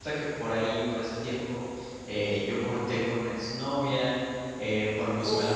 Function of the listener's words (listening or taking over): listening